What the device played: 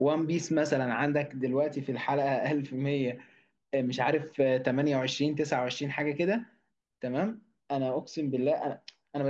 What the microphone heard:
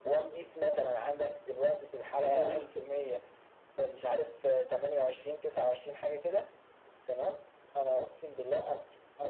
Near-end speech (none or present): present